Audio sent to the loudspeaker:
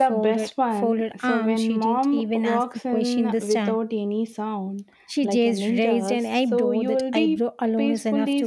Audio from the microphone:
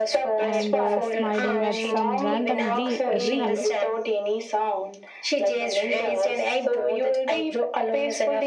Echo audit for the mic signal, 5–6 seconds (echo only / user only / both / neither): echo only